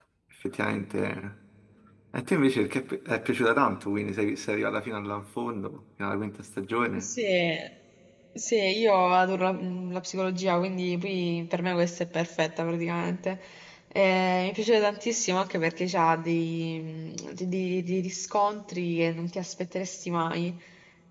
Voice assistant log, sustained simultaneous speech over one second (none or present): none